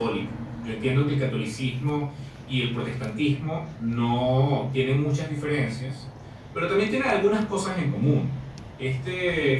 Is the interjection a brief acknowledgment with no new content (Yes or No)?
Yes